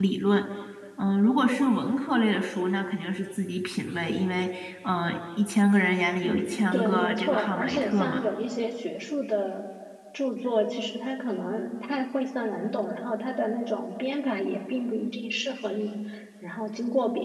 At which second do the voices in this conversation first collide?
6.2 s

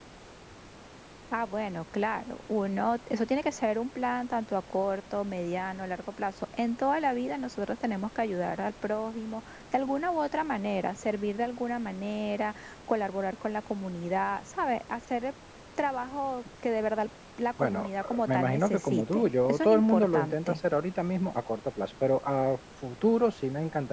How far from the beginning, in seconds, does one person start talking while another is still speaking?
17.6 s

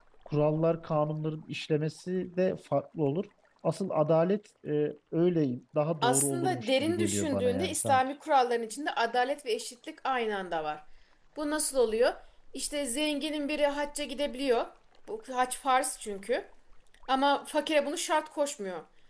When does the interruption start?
6.0 s

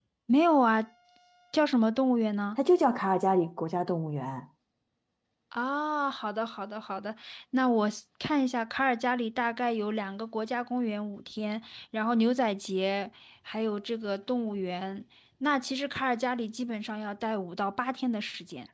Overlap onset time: none

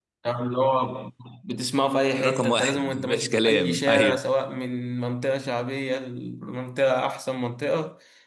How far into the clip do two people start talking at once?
2.2 s

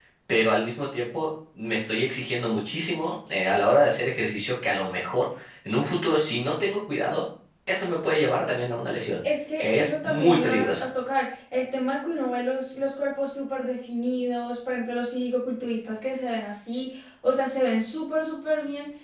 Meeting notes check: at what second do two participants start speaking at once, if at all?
9.6 s

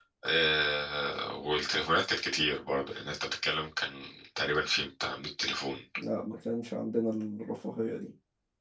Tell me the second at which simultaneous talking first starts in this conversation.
none

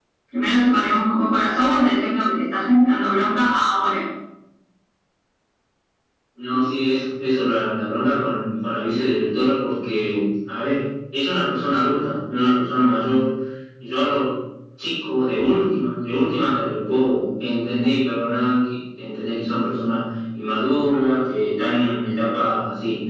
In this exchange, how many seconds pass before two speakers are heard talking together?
none

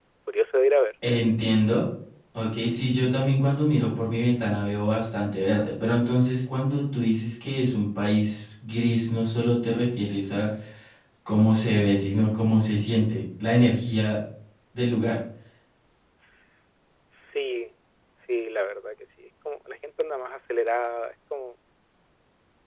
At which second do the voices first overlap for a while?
none

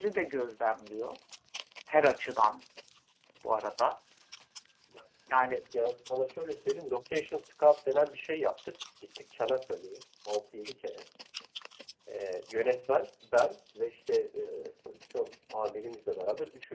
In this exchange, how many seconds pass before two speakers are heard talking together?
none

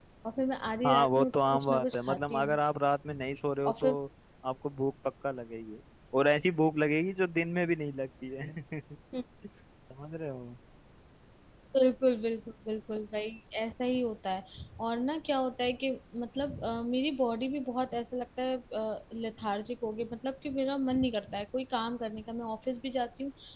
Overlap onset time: 0.8 s

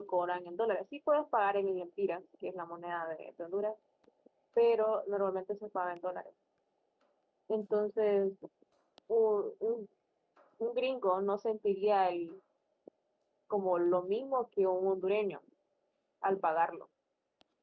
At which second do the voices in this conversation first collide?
none

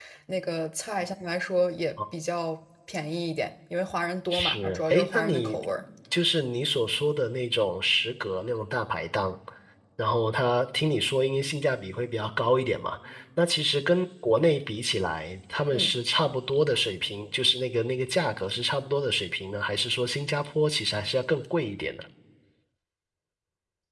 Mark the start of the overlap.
4.3 s

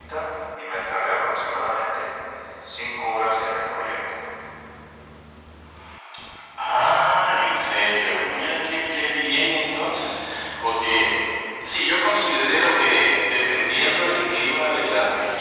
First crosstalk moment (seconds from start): none

